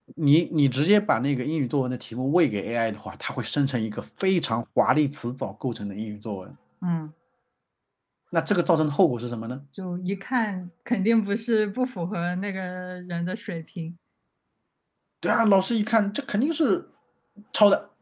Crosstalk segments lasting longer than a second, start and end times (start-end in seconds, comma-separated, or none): none